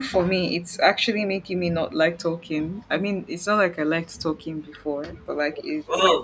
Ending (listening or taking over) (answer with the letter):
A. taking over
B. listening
B